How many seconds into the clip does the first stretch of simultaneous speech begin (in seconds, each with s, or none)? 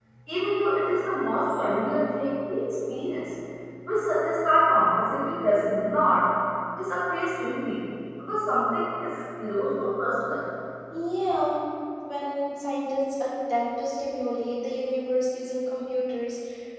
none